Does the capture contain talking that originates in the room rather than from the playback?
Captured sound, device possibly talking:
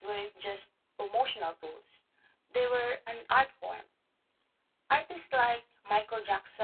No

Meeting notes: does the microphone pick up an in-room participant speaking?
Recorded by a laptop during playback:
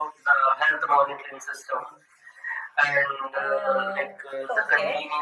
Yes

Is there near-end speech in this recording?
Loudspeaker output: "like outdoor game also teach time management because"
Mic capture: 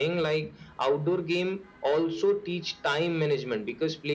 No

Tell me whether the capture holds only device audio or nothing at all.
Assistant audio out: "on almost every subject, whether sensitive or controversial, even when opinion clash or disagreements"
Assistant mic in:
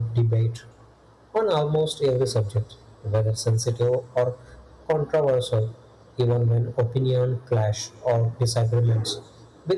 Yes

